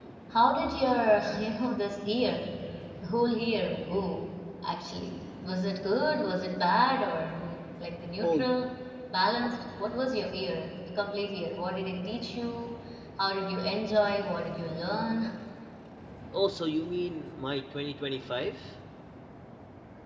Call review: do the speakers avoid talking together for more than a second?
Yes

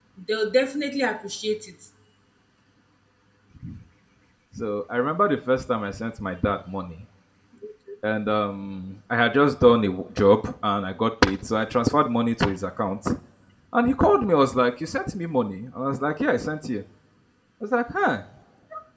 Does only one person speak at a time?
Yes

